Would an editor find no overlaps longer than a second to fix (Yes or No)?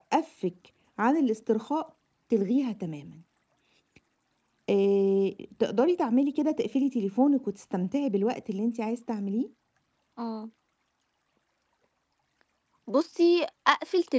Yes